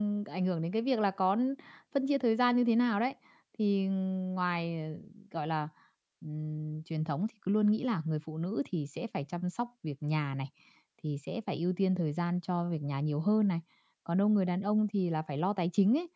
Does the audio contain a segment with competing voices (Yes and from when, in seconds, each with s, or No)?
No